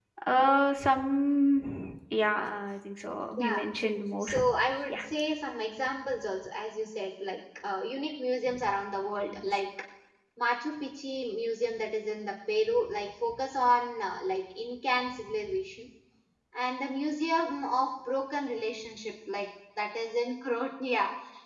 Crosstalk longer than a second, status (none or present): none